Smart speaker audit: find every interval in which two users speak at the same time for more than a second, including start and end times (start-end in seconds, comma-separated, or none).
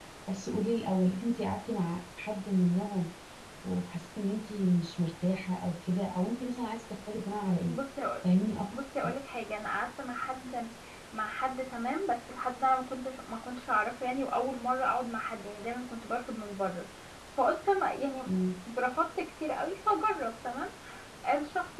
none